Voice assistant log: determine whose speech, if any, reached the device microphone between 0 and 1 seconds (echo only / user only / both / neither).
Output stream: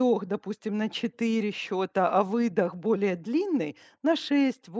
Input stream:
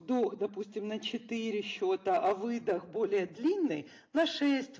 echo only